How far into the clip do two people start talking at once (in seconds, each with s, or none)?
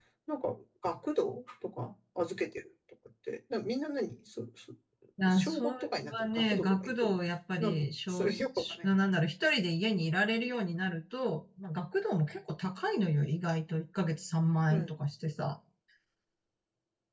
5.3 s